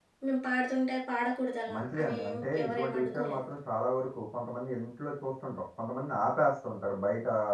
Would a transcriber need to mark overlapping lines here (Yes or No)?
Yes